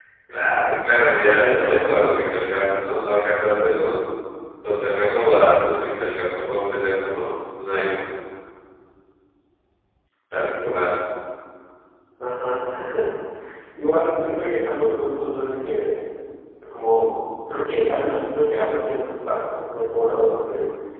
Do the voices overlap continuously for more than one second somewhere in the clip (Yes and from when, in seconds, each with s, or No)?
Yes, from 1.0 s